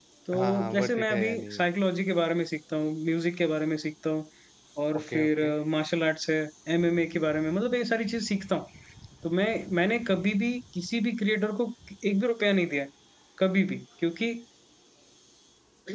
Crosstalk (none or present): present